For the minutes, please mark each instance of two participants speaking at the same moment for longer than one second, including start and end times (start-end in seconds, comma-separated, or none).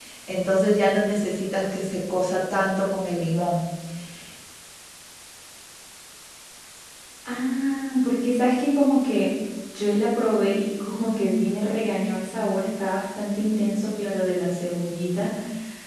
none